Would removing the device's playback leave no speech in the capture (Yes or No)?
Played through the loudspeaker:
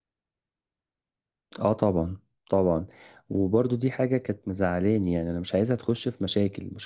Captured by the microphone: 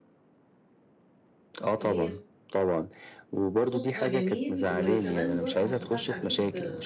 No